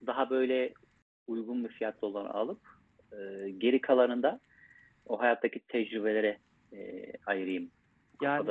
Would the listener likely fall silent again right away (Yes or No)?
No